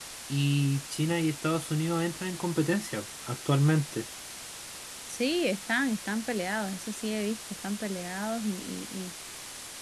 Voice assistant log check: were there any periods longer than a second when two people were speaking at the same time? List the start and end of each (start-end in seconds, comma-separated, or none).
none